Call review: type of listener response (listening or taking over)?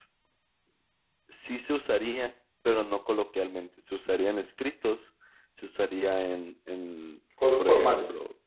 listening